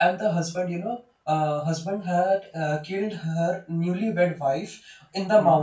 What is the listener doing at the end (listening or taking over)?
listening